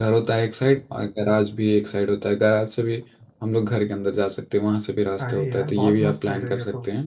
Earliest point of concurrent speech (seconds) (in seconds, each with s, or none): 5.2 s